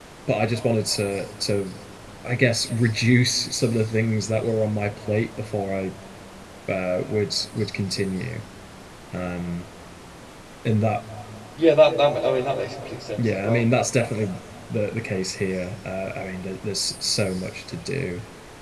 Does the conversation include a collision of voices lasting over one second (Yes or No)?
No